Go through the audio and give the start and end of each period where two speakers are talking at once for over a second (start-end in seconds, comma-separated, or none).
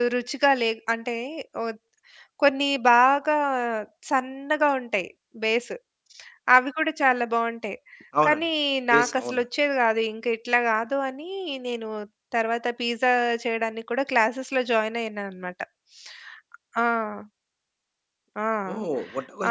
none